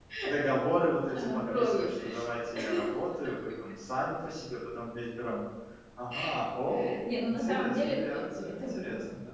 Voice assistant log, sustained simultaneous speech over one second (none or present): present